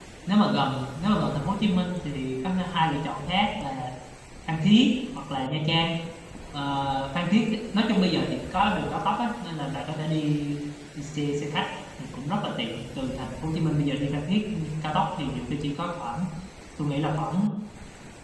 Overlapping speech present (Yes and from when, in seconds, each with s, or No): No